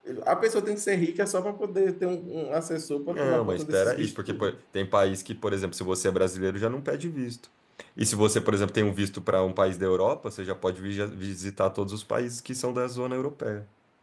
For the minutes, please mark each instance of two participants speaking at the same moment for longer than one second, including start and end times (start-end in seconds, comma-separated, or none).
3.1-4.5